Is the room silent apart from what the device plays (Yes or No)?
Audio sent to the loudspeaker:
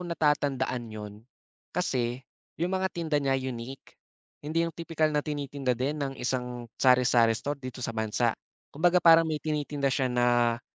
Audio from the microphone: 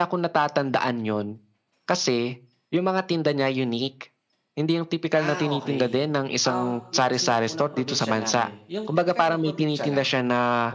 No